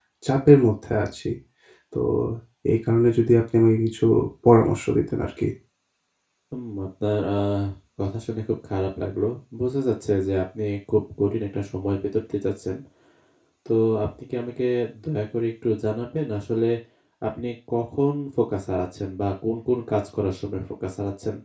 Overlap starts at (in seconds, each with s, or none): none